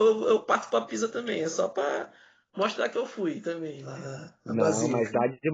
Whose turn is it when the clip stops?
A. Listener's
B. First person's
A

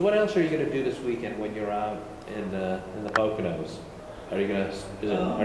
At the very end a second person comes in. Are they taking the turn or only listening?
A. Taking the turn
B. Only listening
B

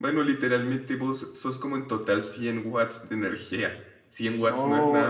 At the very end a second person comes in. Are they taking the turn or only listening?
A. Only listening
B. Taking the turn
B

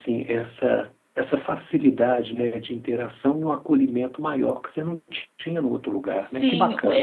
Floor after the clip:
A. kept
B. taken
B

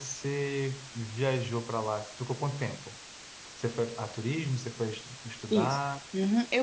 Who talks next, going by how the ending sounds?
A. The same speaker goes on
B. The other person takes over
B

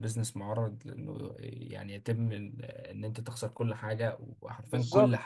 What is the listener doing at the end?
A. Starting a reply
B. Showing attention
A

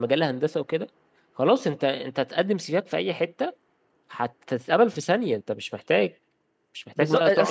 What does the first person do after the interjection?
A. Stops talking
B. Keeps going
A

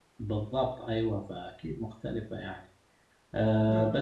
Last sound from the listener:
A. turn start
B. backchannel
B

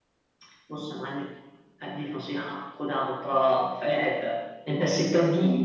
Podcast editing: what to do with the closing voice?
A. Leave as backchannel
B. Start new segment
A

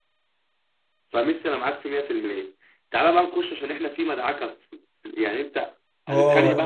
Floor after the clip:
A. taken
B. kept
A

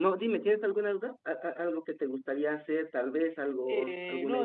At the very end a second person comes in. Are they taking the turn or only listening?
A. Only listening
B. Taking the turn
B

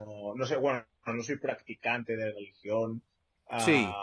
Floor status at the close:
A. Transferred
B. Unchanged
B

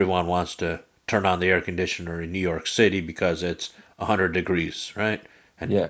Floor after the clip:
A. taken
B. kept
B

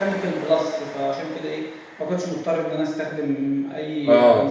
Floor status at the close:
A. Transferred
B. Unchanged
A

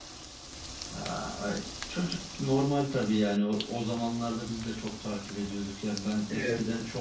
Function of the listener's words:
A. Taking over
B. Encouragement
B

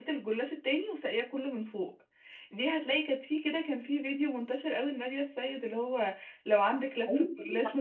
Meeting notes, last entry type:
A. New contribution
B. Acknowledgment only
A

